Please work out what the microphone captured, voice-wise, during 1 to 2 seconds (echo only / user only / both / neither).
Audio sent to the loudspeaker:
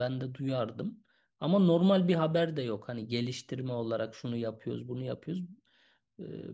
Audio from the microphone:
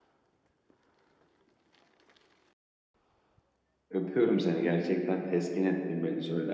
neither